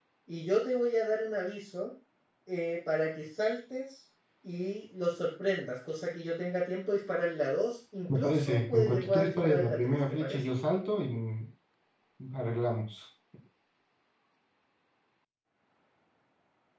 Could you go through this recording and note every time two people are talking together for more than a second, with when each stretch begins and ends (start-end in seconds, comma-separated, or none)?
8.1-10.4